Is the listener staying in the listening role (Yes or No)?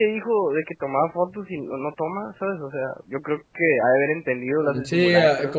No